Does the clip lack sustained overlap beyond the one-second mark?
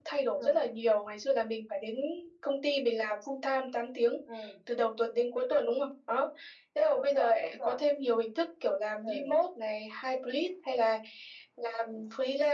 No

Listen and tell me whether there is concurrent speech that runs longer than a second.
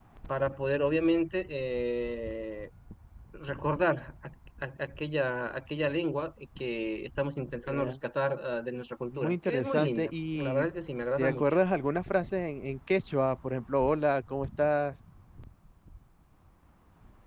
Yes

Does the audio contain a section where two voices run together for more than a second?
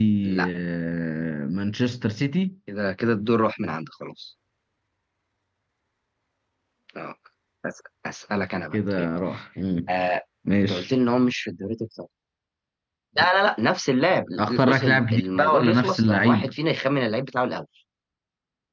Yes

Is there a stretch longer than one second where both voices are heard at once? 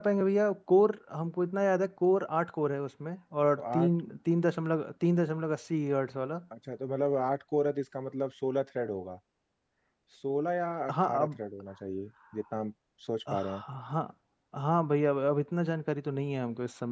No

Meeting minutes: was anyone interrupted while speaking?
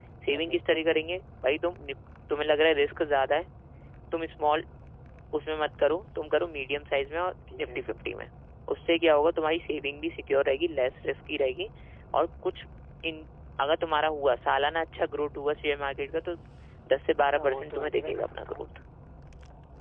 Yes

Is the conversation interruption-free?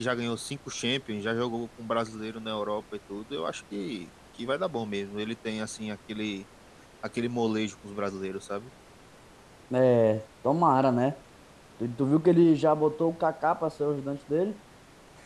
Yes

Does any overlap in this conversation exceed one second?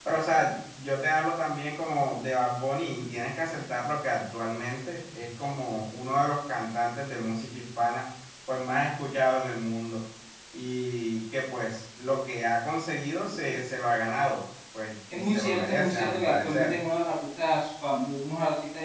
Yes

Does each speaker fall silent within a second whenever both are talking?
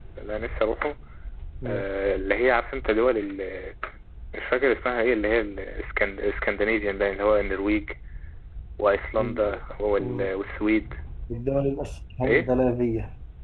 Yes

